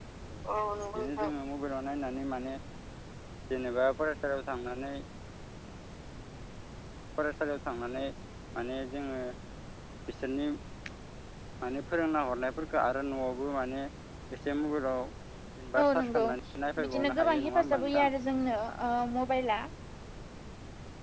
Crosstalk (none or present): present